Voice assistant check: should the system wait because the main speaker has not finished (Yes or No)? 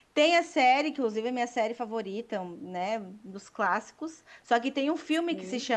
Yes